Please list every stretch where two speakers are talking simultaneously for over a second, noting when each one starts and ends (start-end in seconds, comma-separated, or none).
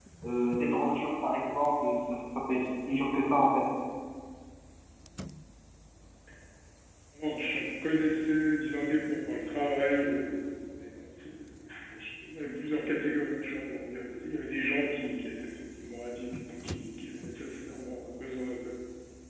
none